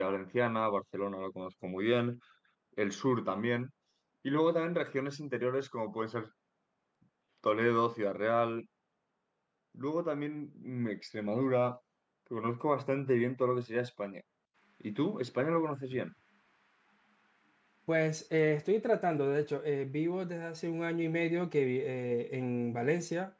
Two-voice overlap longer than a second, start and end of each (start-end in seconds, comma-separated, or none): none